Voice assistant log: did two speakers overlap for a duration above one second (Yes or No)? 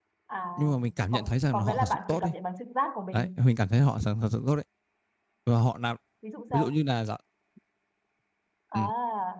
Yes